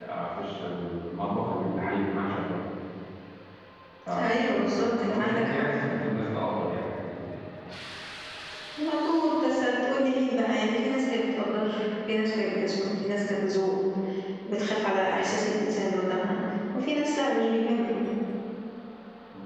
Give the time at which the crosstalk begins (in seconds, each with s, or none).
4.2 s